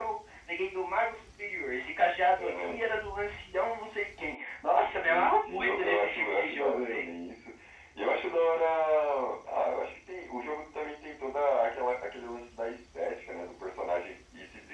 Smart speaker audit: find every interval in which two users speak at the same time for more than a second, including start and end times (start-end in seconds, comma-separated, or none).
5.0-7.1